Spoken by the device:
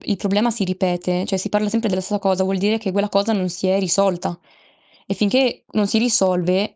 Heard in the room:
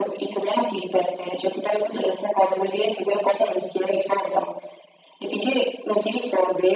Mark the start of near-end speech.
none

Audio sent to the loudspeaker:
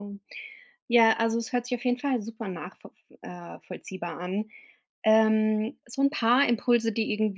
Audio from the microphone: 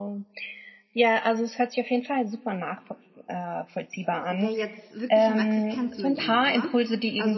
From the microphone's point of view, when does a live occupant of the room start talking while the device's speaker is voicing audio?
4.1 s

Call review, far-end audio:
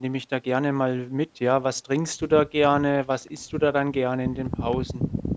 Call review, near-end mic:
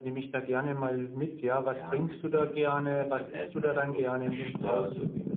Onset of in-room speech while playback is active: 1.6 s

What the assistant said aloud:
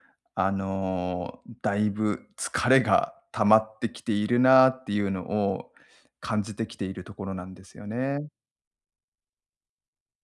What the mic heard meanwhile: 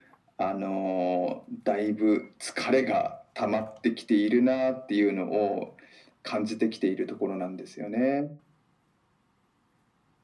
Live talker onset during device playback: none

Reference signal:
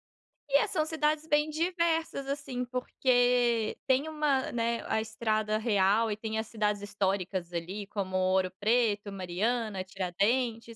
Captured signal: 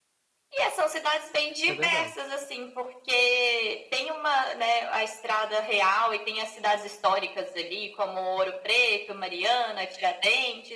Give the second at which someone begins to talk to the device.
1.6 s

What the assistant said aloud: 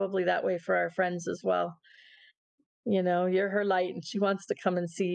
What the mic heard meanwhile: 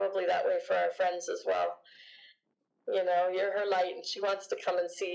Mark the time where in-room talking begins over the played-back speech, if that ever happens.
none

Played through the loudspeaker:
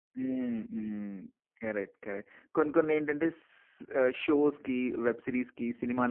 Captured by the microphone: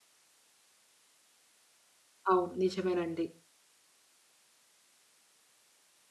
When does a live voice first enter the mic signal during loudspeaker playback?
2.3 s

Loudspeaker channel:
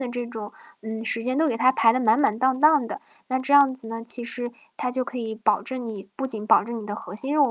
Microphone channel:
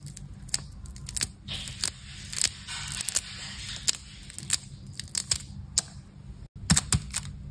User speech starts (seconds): none

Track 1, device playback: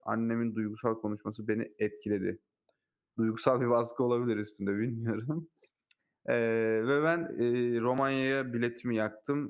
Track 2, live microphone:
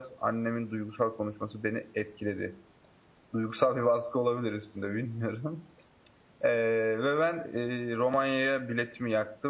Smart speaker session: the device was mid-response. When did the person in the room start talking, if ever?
none

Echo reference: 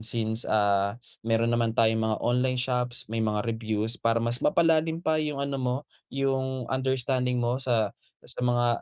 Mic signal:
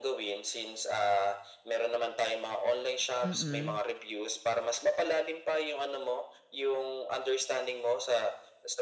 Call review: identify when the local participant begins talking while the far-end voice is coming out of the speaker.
3.2 s

